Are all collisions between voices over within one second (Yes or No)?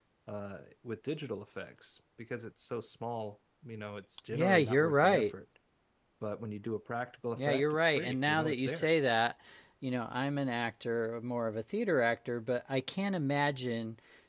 No